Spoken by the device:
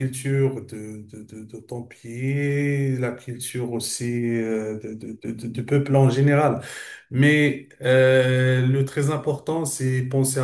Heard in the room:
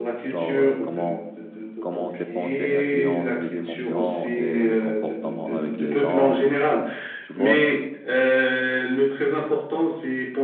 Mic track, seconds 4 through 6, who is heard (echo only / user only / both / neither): both